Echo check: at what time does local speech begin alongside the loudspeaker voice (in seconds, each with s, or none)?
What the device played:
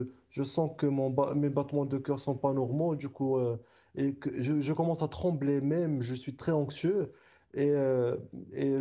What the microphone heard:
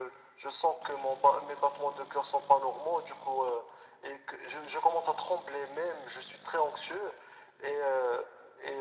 none